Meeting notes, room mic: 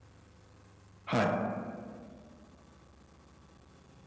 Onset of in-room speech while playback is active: 1.1 s

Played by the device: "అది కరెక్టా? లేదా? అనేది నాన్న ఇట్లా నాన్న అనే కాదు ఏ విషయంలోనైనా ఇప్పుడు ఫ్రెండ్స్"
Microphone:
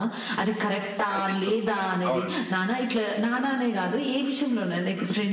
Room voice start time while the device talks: 1.1 s

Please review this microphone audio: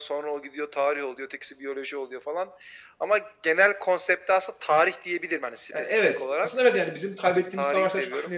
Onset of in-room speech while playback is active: 5.7 s

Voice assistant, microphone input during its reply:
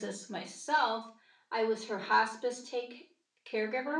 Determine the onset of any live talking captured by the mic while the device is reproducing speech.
none

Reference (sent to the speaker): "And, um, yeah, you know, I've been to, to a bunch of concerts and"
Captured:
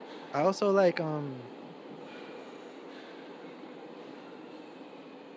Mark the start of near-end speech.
0.3 s

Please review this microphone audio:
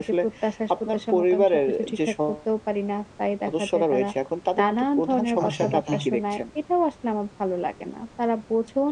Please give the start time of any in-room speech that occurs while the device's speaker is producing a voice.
5.4 s

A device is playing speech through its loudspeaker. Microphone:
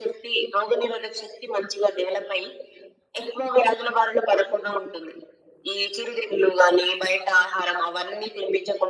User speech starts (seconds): none

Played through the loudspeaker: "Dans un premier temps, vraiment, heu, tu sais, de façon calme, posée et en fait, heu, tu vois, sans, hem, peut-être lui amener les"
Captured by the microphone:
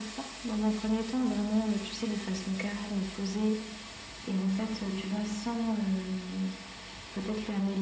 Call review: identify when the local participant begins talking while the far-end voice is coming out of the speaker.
none

